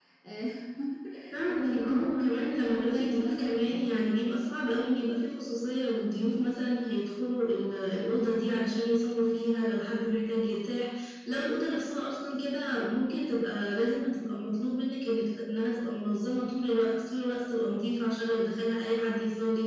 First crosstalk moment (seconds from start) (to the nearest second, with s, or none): 1 s